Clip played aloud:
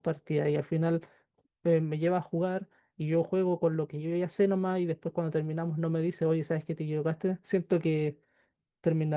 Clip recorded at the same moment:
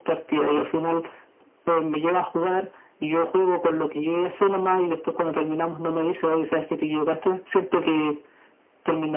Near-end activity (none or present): none